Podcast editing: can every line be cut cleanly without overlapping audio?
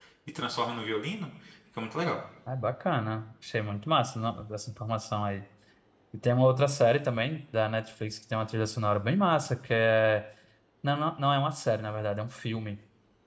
Yes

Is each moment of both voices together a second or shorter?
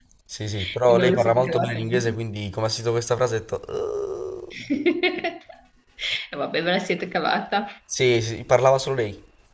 No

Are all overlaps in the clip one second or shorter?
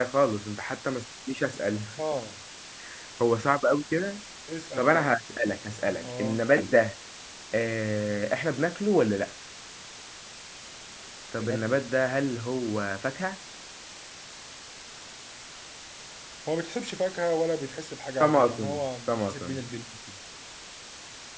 No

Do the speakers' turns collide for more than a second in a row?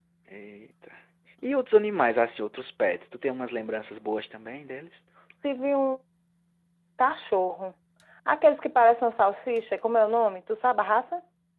No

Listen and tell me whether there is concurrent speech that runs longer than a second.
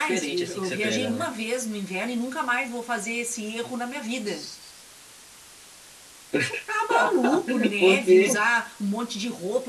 Yes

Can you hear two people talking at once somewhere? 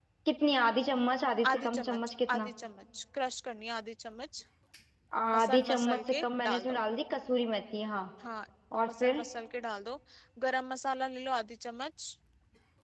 Yes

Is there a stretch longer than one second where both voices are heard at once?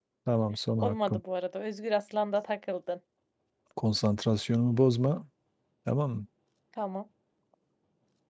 No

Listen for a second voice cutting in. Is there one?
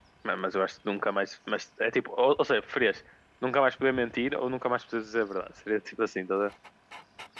No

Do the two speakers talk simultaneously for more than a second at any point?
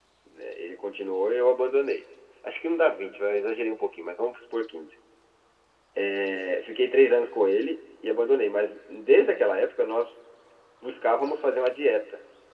No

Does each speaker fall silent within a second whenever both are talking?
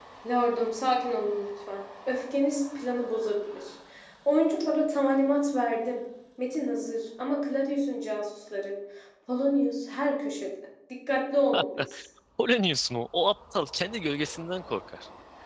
Yes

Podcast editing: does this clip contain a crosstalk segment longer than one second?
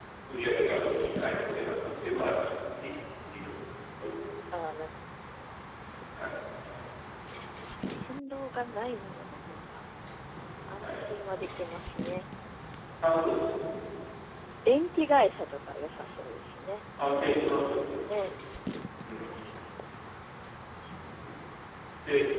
No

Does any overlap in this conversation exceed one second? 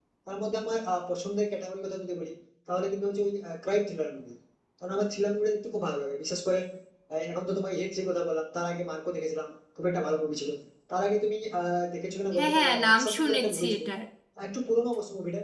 Yes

